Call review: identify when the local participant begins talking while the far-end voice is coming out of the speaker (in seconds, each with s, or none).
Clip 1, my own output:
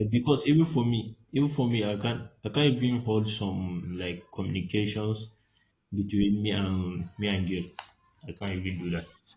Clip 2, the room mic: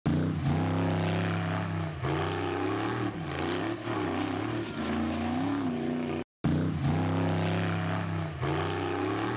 none